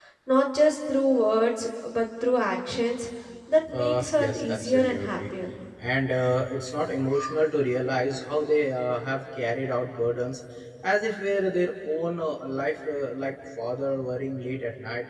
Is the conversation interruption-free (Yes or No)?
No